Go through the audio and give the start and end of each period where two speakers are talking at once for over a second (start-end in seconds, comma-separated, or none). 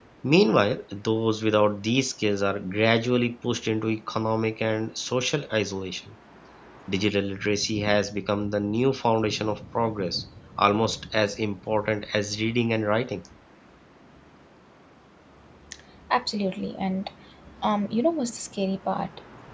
none